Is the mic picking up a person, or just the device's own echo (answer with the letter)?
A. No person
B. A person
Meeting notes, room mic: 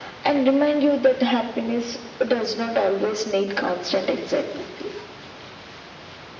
A